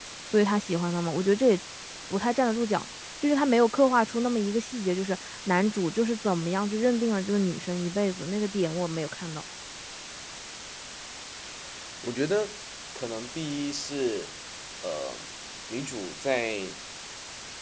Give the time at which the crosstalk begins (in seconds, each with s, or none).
none